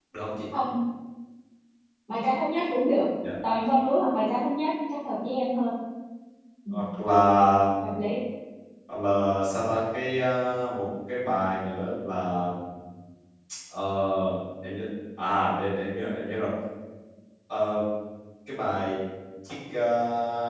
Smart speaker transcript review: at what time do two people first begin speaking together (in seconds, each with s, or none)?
none